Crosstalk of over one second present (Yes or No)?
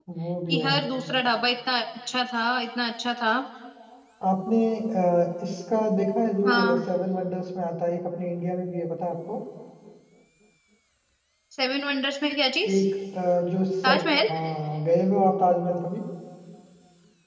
No